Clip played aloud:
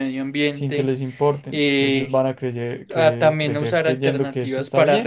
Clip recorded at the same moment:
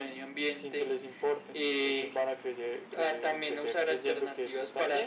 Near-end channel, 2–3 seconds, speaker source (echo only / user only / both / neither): echo only